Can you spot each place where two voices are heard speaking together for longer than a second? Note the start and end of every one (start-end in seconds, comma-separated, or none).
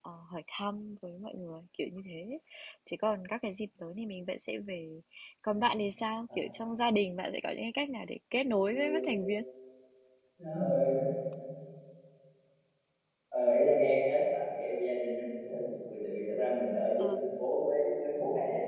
none